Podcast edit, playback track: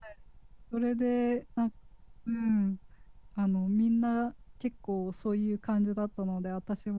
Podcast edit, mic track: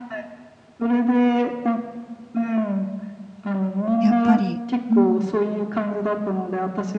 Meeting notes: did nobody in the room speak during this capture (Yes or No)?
No